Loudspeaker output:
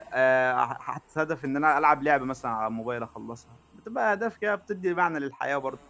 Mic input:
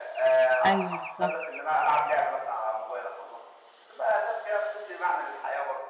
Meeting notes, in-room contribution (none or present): present